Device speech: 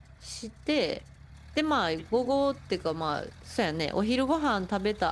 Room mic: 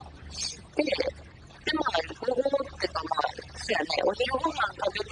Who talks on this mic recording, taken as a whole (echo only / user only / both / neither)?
echo only